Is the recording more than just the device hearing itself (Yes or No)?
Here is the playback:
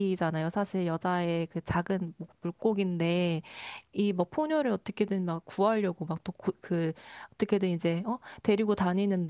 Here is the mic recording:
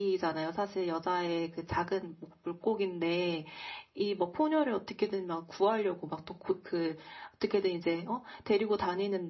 No